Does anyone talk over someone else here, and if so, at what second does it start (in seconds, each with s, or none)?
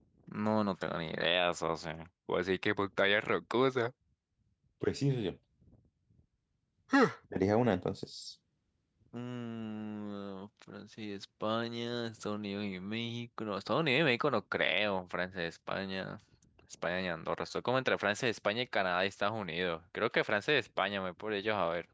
none